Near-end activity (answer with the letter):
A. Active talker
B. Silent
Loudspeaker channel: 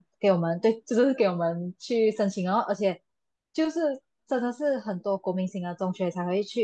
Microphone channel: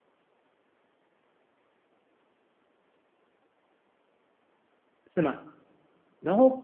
A